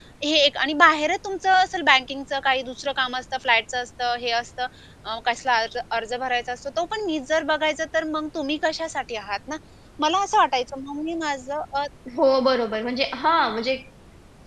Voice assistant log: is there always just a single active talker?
Yes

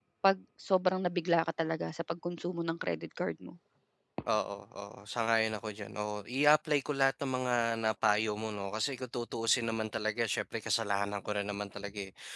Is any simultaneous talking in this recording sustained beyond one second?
No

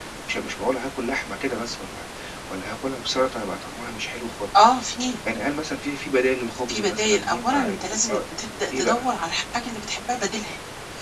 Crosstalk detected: Yes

